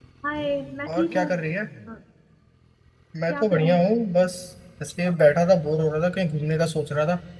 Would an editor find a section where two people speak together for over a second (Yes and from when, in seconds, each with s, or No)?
No